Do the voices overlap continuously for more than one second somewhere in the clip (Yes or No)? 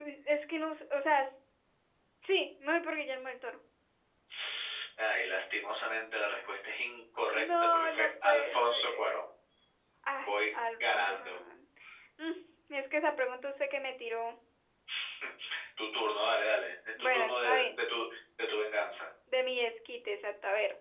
Yes